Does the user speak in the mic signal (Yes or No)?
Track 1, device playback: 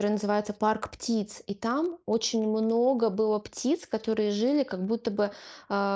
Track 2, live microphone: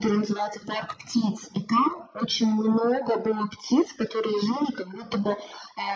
No